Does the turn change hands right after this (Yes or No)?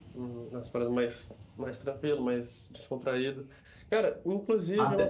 No